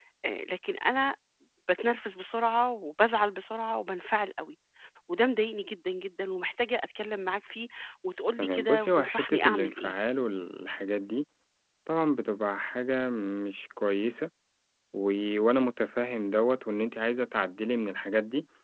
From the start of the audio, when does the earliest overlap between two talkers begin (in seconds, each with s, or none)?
8.4 s